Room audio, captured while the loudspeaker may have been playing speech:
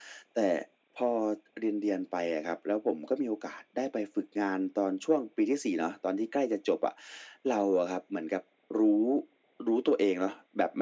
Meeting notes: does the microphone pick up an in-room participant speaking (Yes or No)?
No